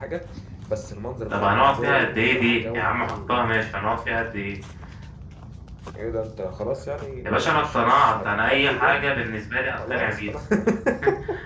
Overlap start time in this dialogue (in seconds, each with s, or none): 1.3 s